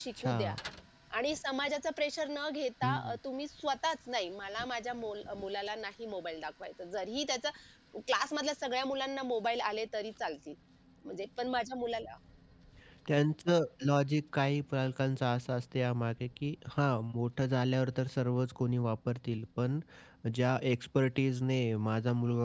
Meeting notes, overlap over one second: none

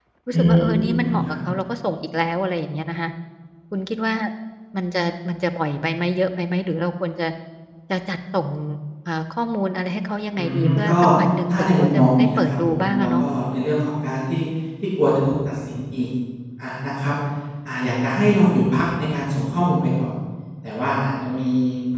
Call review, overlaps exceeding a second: present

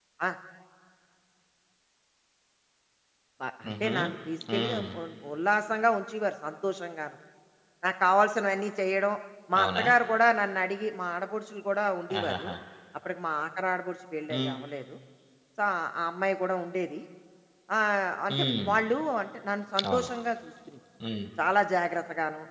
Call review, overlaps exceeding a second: none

